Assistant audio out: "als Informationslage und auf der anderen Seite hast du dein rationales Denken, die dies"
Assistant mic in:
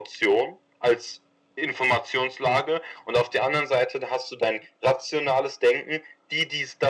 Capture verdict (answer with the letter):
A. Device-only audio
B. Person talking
A